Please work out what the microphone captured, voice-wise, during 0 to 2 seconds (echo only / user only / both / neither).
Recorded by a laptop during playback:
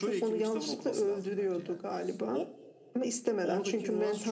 both